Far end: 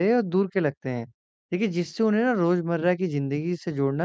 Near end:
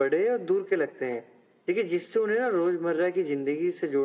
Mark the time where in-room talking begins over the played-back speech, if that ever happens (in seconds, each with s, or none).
none